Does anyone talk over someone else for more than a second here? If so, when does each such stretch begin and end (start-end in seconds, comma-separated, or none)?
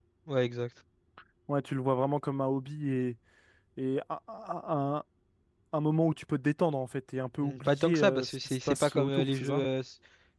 7.4-9.6